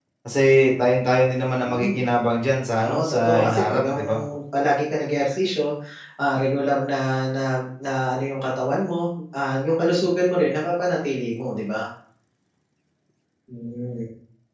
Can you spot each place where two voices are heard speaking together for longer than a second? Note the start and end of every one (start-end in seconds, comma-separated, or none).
2.8-4.0